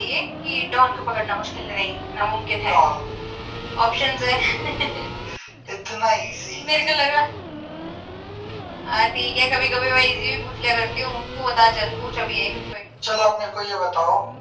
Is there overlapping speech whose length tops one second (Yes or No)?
No